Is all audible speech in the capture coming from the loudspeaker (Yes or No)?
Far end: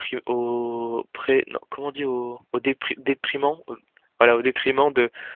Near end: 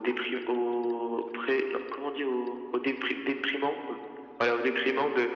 Yes